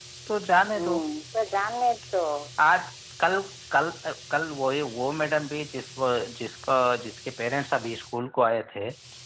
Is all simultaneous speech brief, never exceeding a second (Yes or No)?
Yes